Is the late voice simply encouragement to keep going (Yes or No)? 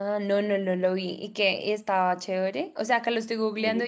Yes